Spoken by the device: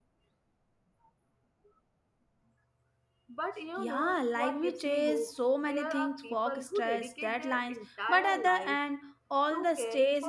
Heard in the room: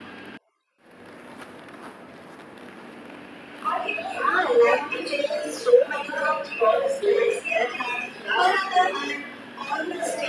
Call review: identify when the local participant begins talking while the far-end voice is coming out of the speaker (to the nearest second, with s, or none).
none